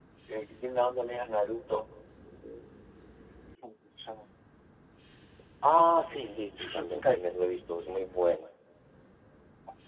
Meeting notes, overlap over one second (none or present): present